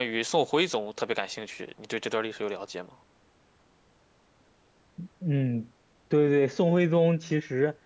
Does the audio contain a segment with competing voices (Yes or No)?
No